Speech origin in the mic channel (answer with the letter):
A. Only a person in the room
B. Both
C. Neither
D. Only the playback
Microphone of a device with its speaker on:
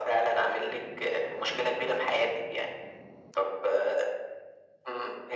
D